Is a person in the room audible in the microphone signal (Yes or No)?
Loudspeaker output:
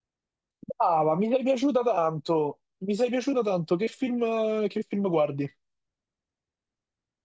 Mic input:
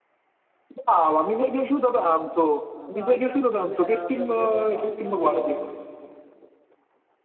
Yes